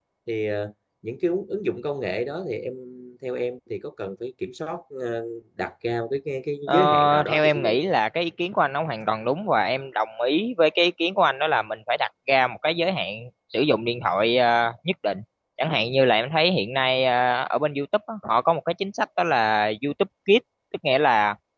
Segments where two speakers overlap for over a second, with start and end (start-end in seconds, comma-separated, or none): 6.7-7.9